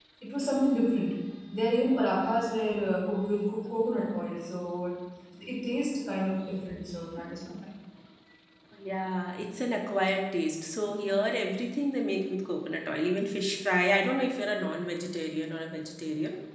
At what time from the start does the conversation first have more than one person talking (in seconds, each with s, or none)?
none